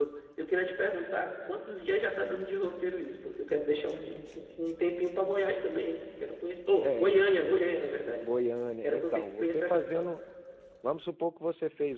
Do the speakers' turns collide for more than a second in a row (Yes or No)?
Yes